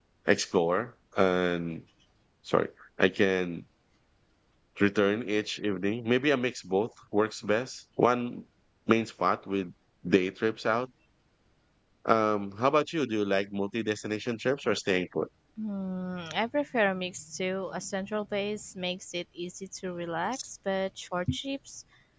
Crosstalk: none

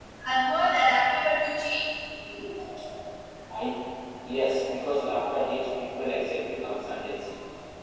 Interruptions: none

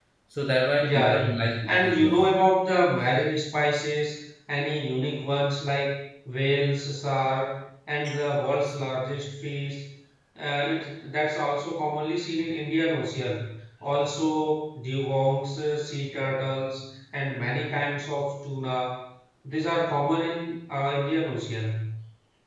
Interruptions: present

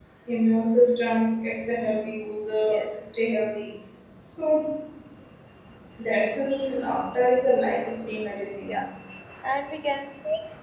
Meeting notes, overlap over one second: none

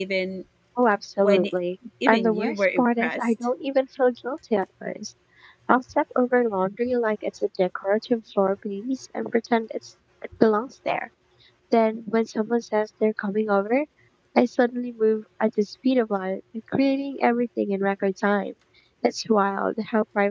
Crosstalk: present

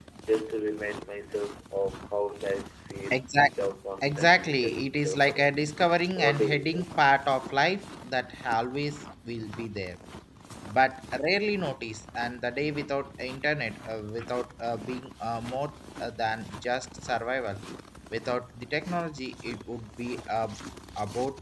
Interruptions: present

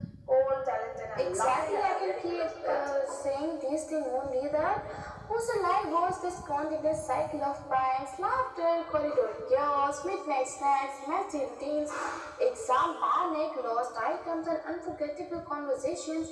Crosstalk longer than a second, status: present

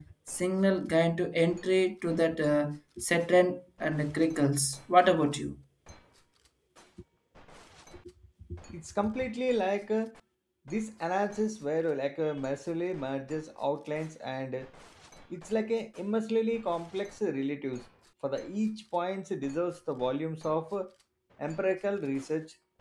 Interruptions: none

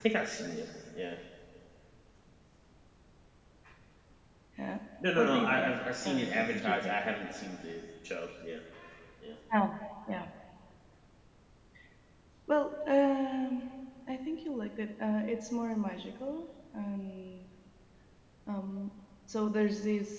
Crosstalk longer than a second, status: present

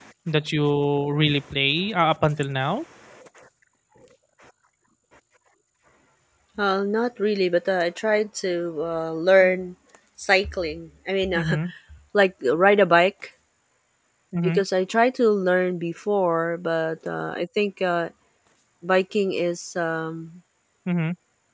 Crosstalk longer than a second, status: none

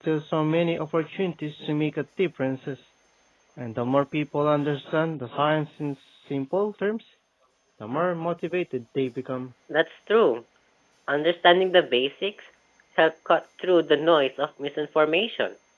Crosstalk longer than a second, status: none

